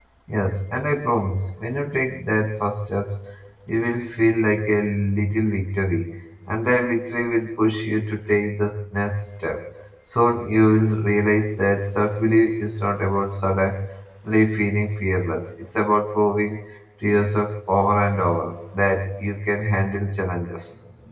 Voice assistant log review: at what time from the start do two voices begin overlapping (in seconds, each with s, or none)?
none